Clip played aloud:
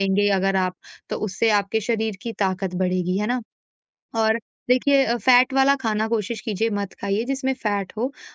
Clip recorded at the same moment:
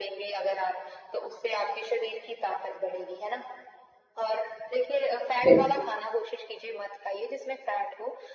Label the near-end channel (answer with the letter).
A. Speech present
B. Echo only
A